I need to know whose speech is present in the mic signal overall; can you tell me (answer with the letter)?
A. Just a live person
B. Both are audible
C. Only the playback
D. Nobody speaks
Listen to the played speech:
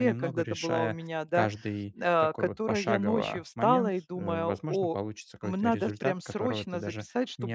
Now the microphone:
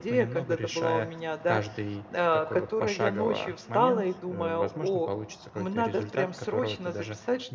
C